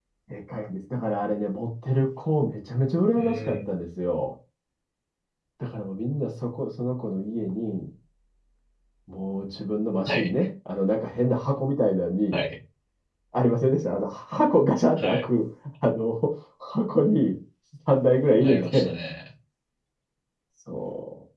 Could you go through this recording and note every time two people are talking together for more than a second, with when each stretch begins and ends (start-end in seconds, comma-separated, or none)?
none